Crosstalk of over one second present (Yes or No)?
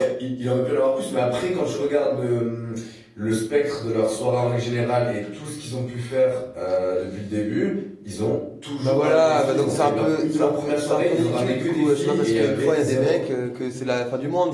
Yes